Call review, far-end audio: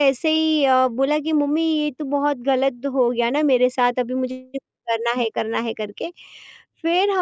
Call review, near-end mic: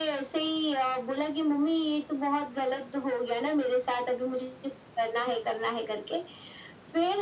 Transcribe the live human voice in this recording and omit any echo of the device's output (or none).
none